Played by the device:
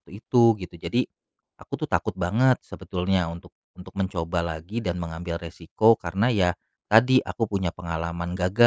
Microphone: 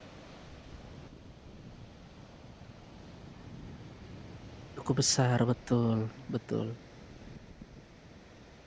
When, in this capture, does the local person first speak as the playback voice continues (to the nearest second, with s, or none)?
5 s